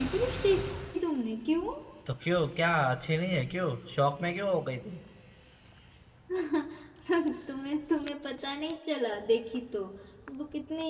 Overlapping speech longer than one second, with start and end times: none

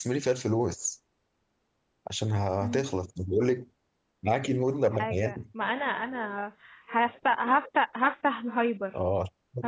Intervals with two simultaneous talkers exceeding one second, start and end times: none

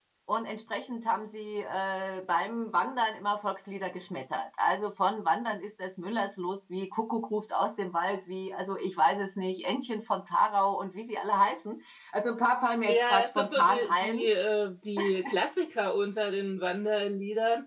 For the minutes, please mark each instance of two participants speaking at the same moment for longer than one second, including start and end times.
12.9-14.3

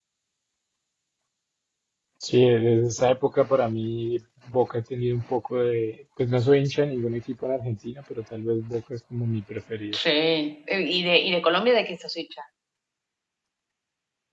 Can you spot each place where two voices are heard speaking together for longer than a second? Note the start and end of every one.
none

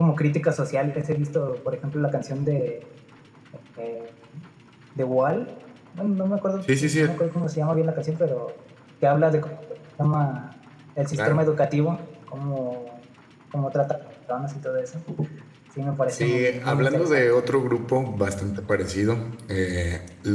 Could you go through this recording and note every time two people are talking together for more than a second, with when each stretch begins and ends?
16.1-17.4

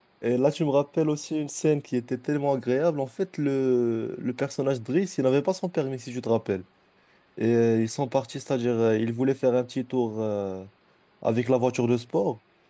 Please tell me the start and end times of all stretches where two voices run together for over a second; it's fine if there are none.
none

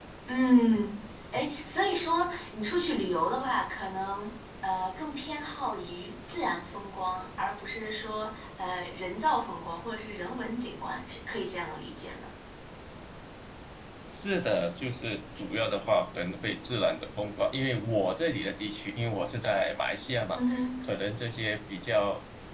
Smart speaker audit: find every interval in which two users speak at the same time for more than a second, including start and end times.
none

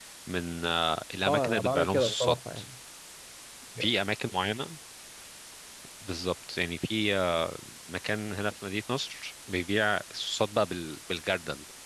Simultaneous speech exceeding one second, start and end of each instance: 1.3-2.6

